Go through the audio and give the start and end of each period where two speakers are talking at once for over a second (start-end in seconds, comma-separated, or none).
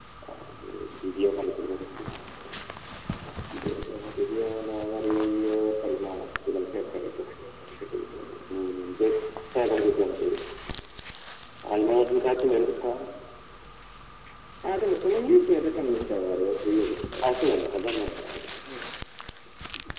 none